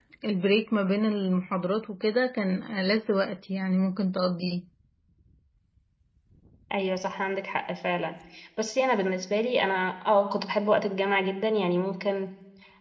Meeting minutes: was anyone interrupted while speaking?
No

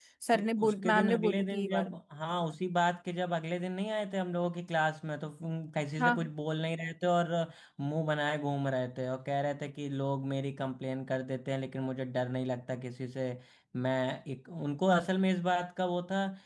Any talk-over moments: Yes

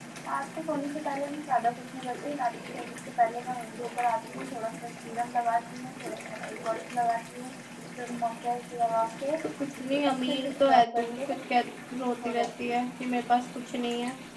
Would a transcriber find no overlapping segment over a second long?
No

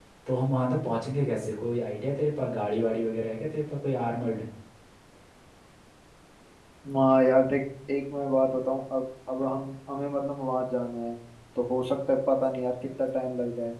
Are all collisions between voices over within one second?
Yes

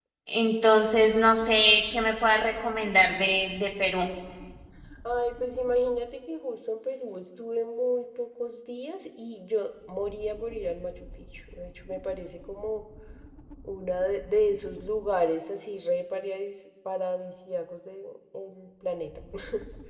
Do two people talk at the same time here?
No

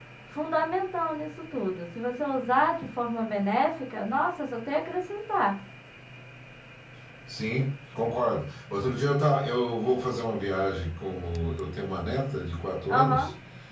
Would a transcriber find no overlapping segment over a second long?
Yes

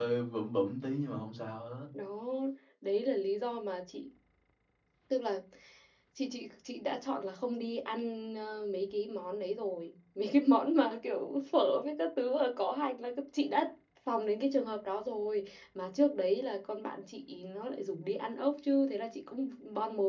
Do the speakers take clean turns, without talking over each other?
Yes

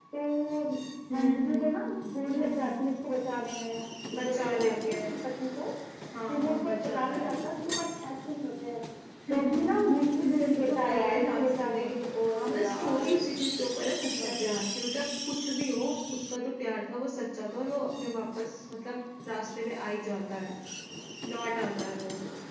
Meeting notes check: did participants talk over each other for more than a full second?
Yes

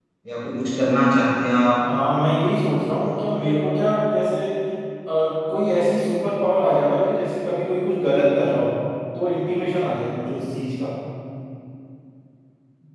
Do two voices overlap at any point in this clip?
No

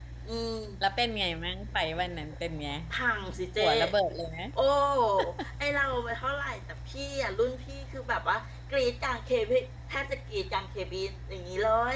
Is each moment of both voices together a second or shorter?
Yes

